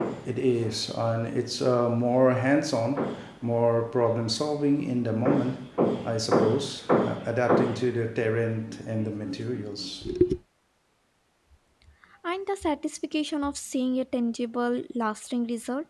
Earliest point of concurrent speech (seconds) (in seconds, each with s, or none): none